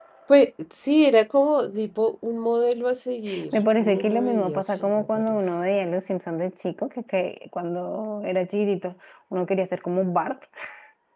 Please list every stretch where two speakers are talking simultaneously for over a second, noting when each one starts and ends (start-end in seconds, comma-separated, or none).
3.5-5.4